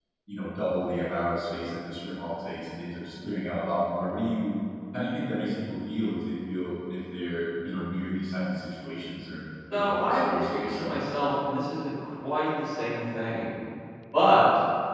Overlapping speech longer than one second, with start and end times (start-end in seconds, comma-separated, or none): 9.7-10.9